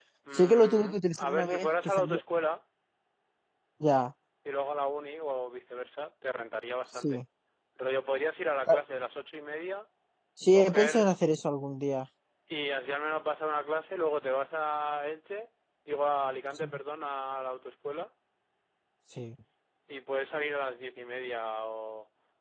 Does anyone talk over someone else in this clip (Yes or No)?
Yes